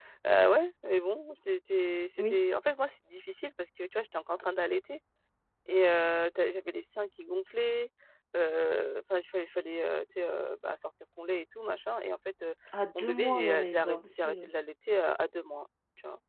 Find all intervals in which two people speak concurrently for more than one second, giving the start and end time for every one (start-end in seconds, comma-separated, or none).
13.0-14.5